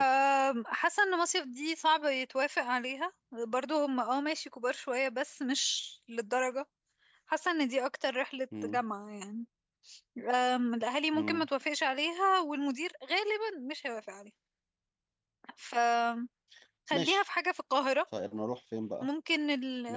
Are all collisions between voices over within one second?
Yes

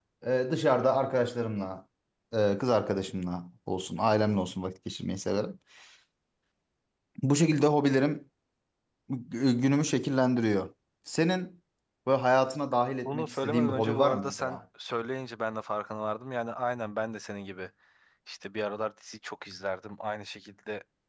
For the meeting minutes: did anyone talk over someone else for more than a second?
Yes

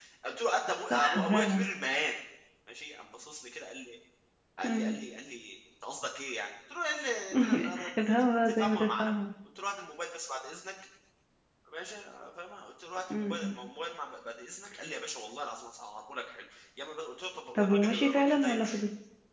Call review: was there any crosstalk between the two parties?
Yes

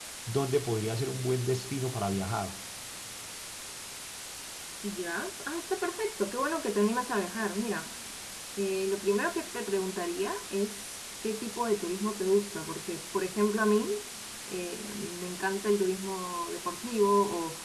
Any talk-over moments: No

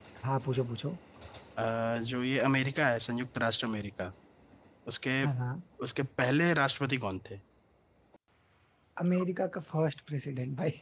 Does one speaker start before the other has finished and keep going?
No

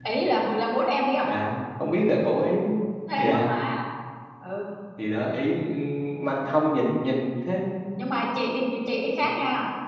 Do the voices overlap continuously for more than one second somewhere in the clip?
No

